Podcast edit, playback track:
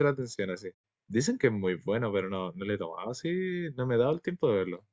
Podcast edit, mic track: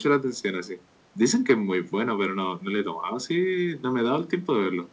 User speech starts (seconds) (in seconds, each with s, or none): none